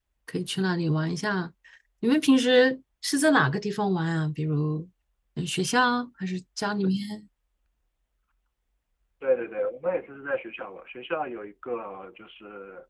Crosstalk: none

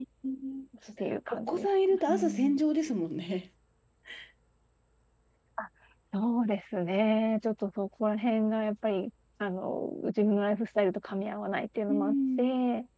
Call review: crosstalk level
present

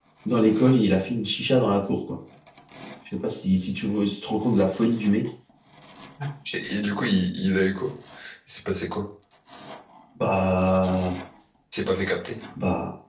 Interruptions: none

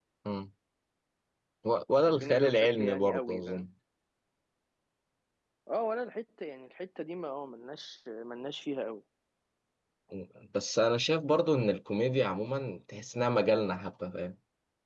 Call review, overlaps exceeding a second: present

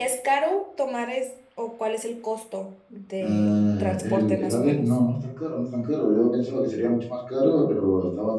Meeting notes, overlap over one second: present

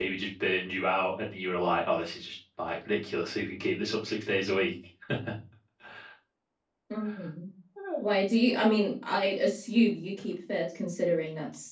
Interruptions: none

